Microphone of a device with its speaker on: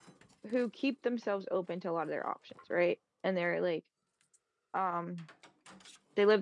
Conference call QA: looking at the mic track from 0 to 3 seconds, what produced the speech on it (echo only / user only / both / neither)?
user only